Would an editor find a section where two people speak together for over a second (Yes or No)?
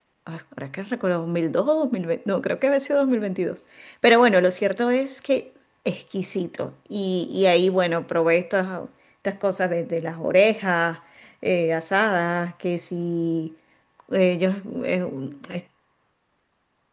No